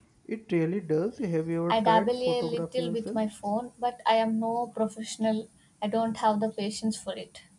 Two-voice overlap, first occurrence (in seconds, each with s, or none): 1.7 s